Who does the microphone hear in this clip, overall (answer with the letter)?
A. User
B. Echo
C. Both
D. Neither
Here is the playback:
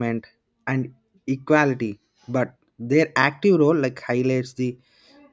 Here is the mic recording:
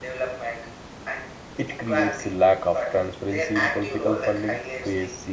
C